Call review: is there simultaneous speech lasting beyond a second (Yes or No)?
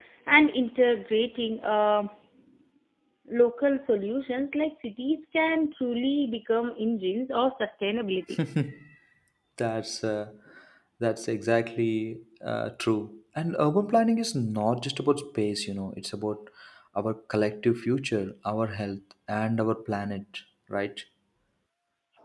No